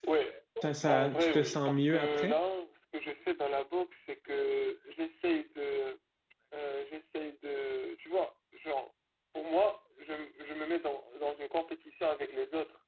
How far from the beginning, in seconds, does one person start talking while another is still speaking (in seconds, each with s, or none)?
0.9 s